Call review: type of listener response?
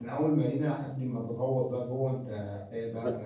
taking over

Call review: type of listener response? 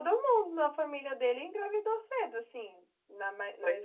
listening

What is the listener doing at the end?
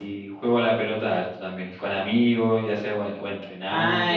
taking over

